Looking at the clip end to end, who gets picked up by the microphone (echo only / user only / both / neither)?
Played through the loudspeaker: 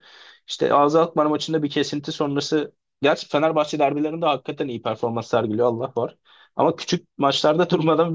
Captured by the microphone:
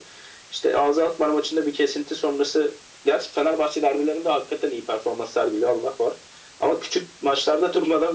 echo only